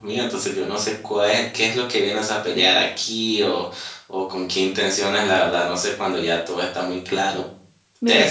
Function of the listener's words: listening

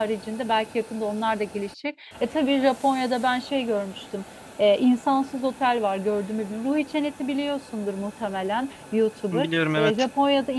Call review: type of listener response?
listening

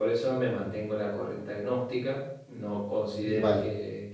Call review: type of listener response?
listening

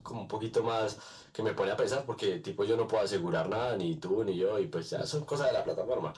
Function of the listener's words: listening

